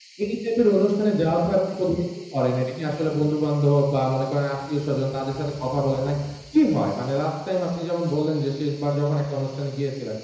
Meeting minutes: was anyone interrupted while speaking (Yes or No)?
No